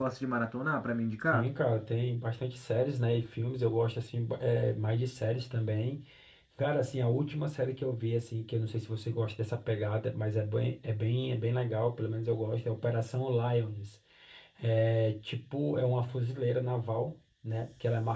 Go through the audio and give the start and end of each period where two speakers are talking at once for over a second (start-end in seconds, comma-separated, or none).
none